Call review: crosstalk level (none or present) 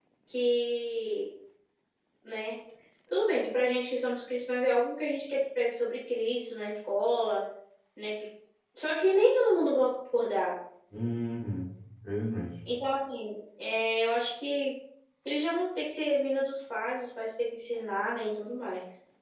none